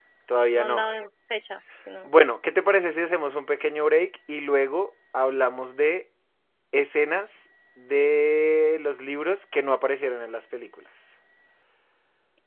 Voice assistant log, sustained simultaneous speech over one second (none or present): none